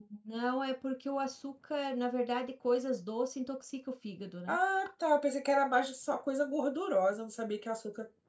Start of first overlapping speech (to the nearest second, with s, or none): none